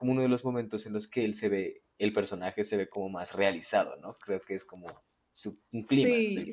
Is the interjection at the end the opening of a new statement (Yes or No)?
Yes